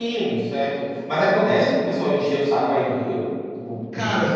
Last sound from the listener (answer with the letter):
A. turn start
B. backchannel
A